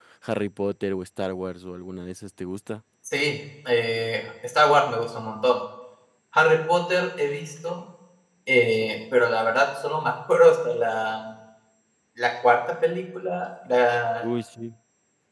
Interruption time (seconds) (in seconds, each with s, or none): none